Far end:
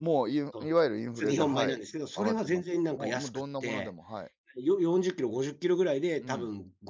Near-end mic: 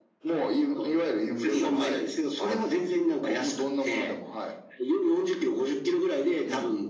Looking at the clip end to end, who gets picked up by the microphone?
echo only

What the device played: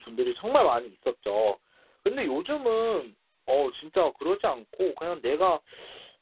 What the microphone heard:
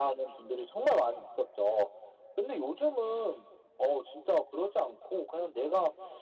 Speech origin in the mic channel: echo only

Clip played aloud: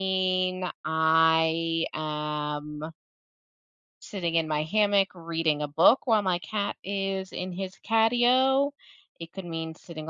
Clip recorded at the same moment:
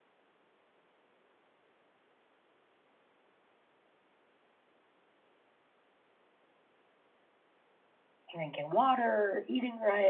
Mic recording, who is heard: user only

